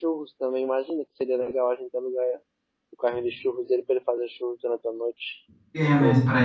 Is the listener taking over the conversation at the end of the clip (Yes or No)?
Yes